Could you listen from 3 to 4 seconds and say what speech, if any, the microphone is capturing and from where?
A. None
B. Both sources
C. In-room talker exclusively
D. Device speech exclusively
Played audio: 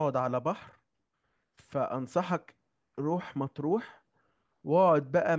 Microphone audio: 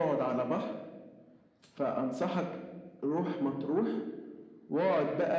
D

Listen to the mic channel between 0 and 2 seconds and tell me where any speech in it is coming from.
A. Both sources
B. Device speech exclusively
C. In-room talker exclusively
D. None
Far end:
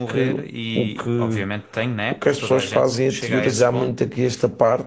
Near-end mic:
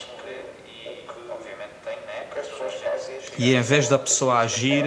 B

